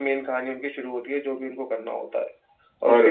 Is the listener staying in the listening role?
Yes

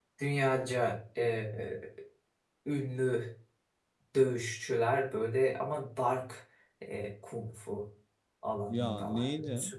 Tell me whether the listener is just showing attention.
Yes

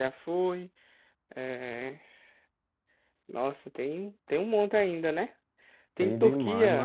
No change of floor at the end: No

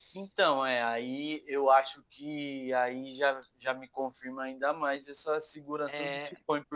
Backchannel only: Yes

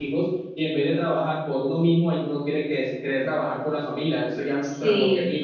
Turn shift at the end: No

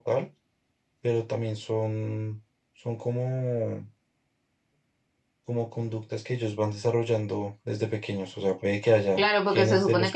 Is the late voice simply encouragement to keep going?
No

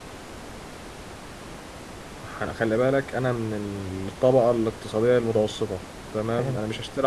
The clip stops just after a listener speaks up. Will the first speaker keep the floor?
Yes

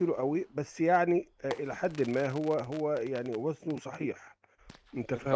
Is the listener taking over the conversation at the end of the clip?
Yes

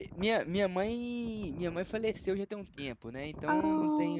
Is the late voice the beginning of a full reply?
No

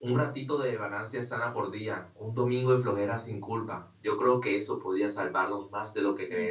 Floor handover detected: Yes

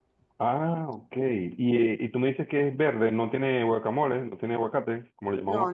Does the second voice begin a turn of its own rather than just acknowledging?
Yes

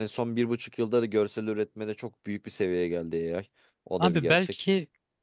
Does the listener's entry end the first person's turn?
Yes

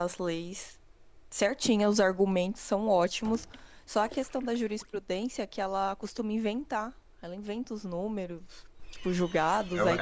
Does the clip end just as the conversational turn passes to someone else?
Yes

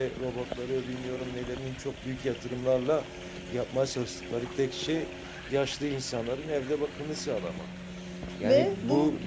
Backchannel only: Yes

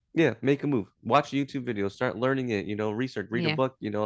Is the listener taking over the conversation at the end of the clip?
No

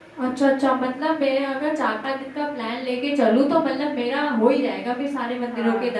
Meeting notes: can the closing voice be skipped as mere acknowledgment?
No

